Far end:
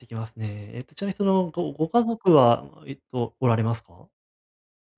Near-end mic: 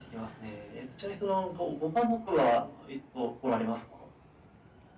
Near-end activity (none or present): none